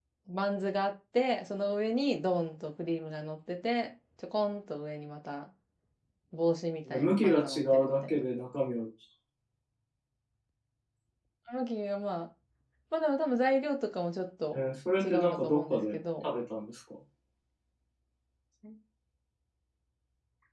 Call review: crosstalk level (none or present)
present